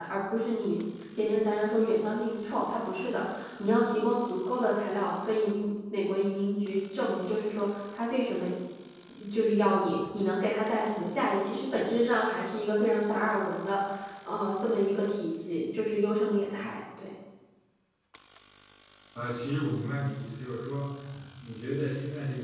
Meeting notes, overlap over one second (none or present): none